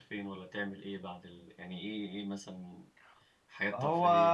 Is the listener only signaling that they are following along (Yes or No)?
No